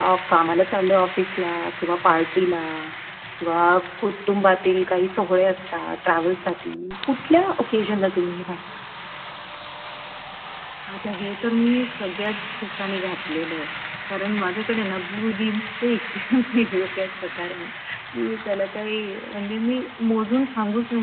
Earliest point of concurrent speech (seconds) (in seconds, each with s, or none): none